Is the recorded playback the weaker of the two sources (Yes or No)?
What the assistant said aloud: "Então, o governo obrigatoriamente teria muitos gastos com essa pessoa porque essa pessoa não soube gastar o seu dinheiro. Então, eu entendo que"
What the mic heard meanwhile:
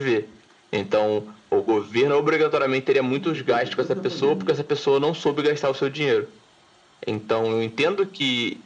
No